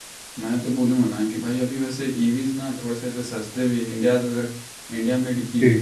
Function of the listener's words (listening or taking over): listening